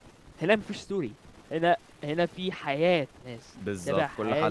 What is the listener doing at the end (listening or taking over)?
taking over